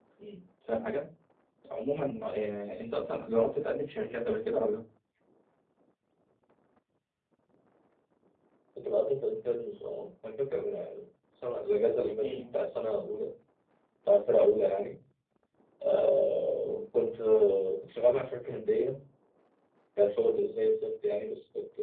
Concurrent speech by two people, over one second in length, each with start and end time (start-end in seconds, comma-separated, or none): none